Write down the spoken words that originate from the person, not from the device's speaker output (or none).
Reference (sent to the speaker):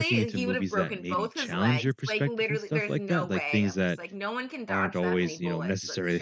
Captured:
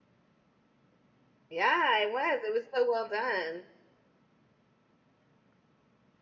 Yeah, it was. It was so well done.